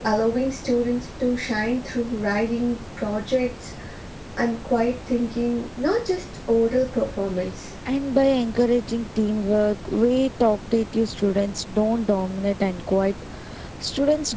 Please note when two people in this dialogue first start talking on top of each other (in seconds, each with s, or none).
none